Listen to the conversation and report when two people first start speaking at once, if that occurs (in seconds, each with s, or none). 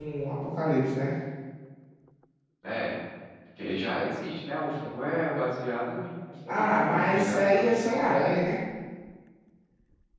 6.5 s